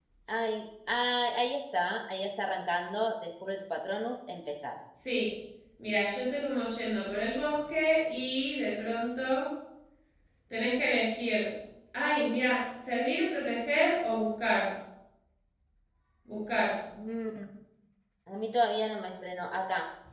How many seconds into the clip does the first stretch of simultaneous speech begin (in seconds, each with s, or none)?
none